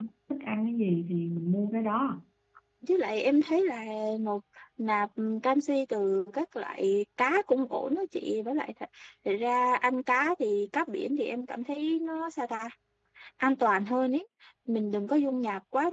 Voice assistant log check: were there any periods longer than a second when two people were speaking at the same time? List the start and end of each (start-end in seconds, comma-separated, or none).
none